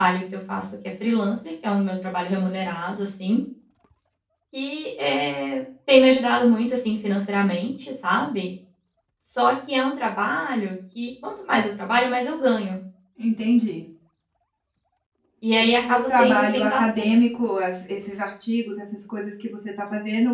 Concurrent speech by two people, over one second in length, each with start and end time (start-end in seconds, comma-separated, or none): 15.6-17.1